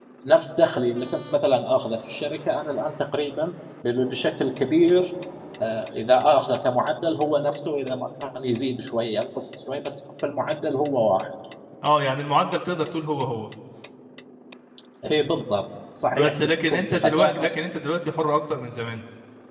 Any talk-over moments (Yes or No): Yes